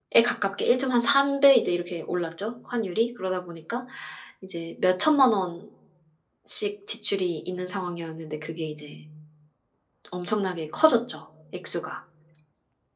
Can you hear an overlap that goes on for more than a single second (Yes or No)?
No